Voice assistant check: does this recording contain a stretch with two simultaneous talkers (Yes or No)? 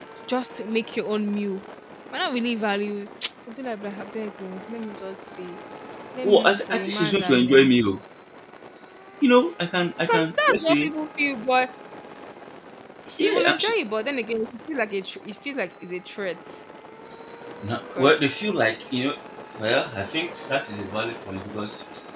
Yes